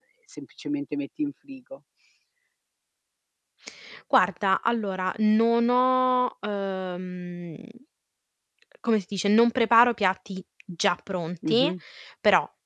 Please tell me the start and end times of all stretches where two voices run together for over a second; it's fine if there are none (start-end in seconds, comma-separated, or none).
none